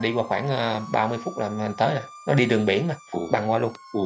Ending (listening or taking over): taking over